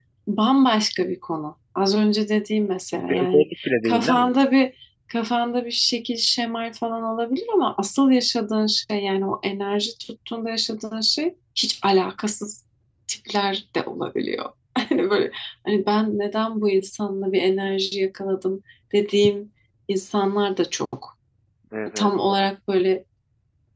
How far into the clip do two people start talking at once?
3.1 s

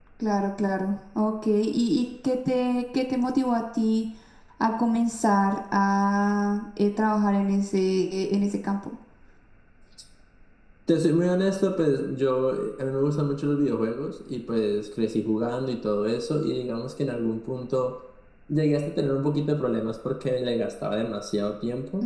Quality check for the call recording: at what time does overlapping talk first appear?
none

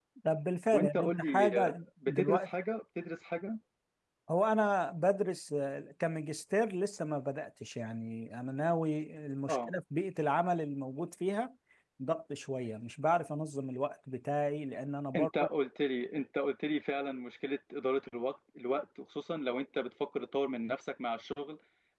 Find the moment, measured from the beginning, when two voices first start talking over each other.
0.7 s

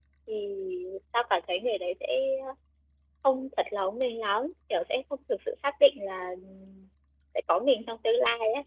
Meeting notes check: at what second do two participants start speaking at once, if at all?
none

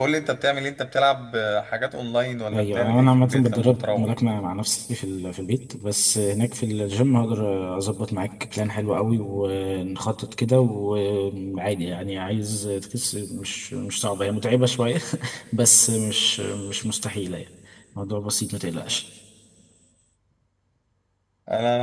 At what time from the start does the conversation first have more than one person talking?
2.5 s

